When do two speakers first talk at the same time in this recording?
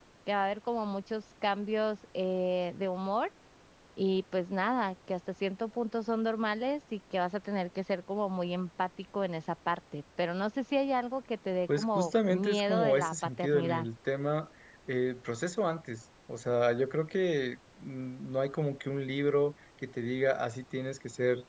11.7 s

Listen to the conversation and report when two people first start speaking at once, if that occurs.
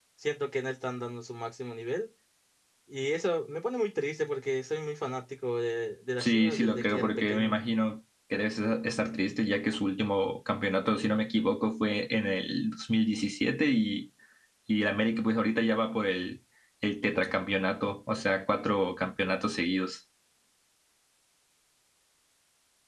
6.2 s

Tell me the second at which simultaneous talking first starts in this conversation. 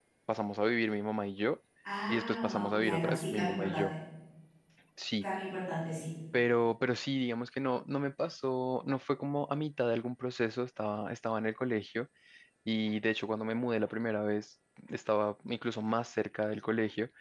2.1 s

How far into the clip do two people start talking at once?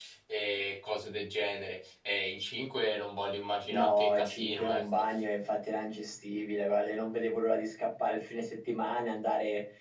3.7 s

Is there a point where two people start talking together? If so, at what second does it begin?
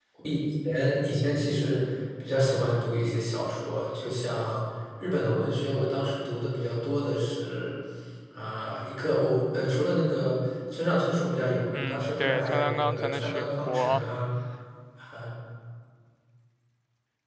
11.7 s

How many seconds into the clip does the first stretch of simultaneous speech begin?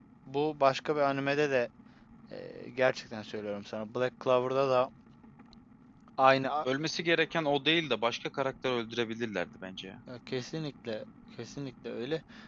none

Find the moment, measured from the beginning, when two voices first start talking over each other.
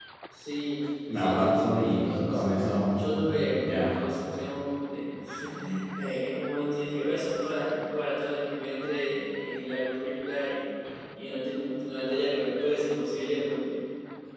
1.2 s

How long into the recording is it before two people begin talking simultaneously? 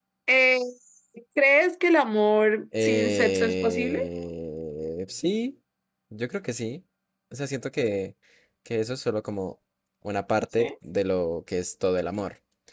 2.8 s

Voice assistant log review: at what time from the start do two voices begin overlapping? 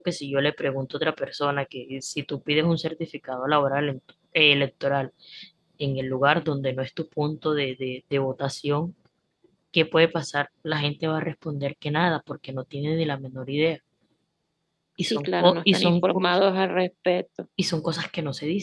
15.1 s

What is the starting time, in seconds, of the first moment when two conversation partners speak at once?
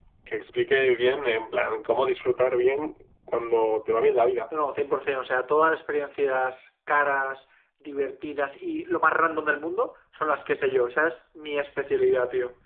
none

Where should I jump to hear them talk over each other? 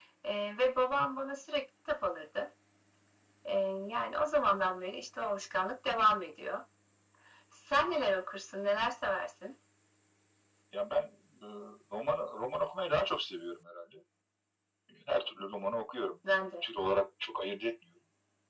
none

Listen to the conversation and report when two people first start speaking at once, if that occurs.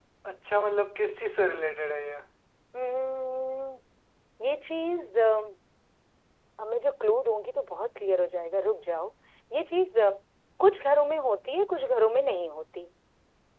none

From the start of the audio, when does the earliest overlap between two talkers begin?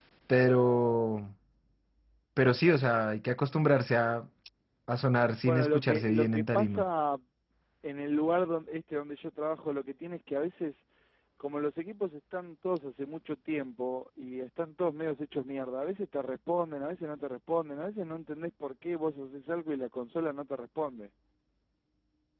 5.5 s

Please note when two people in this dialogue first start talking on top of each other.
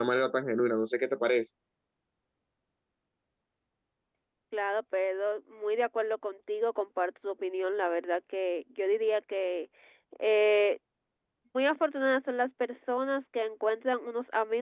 none

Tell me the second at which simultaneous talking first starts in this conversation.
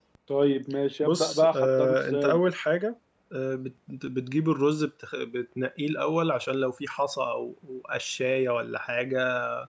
1.0 s

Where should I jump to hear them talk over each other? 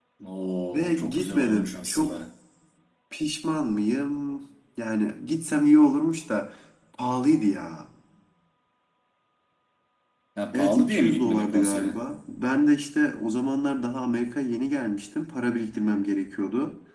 0.7 s

